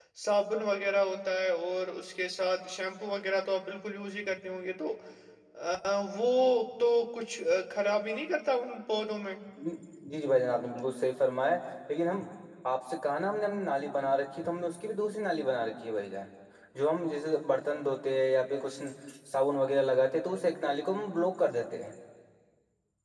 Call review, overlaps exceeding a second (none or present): none